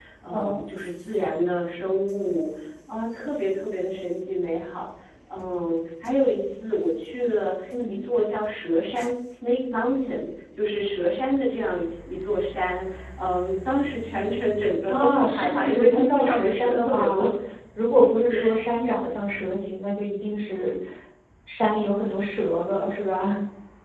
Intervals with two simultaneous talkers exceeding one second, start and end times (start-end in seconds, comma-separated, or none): 14.9-17.2